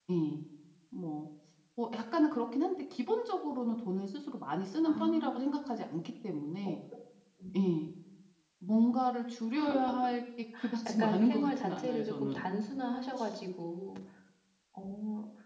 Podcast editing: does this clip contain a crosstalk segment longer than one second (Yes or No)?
Yes